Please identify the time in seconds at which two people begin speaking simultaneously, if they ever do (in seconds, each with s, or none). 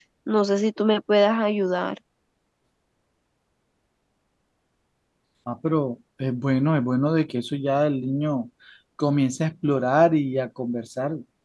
none